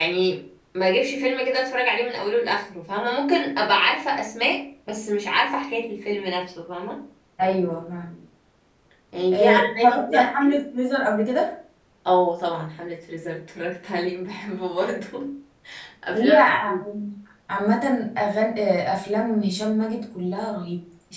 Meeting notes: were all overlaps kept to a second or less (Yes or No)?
No